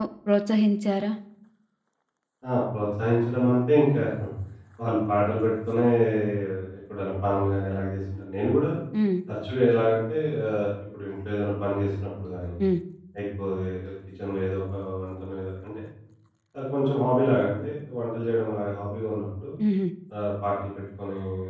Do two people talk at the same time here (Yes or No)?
No